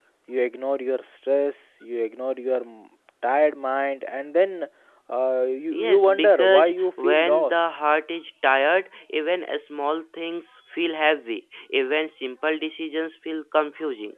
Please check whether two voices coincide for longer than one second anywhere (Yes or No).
Yes